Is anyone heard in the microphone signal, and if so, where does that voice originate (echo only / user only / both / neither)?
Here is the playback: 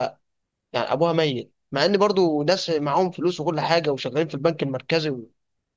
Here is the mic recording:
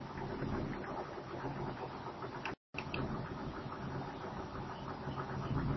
neither